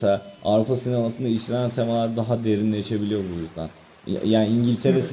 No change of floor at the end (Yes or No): Yes